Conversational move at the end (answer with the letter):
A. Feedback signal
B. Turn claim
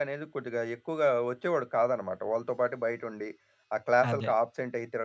A